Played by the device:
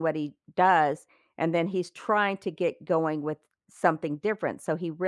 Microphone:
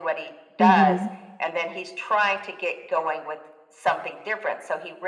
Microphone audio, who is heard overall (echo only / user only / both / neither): both